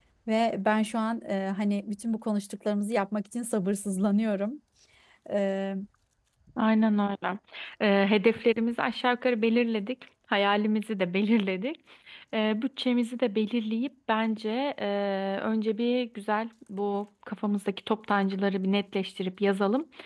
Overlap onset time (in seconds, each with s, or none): none